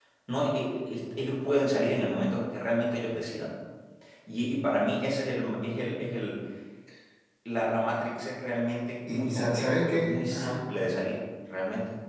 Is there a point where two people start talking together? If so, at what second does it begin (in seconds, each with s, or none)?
9.0 s